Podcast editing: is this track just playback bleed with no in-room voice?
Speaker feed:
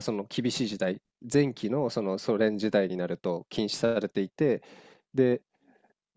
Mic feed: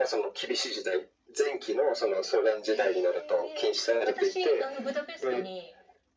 No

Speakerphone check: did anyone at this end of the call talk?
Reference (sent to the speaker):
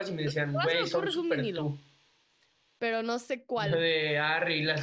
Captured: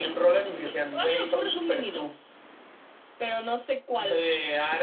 No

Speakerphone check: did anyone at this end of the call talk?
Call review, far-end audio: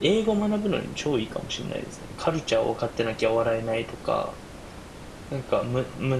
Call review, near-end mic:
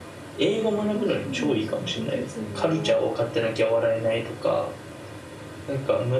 Yes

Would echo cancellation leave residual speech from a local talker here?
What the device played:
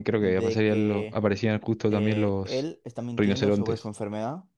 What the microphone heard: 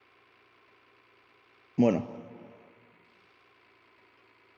Yes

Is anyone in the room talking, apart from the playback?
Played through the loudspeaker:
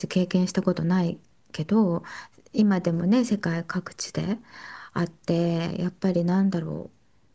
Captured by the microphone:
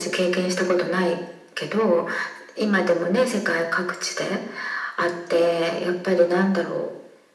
No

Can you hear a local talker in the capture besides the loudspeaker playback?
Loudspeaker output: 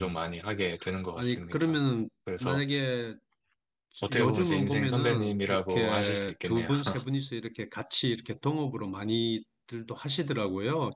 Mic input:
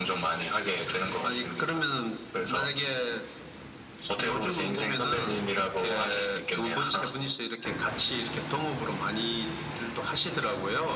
No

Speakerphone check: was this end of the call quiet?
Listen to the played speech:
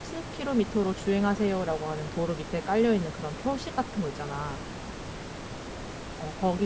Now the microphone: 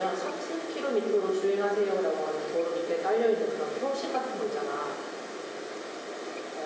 Yes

